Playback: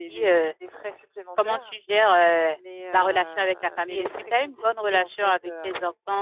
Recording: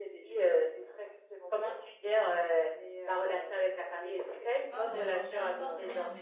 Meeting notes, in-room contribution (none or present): present